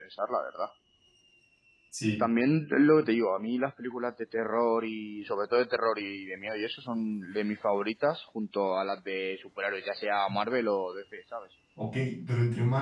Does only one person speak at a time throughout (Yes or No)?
Yes